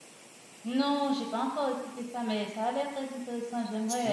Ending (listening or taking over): taking over